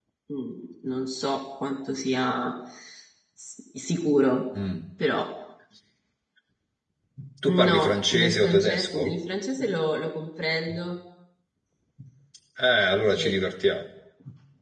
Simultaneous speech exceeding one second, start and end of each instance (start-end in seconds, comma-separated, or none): 7.5-9.0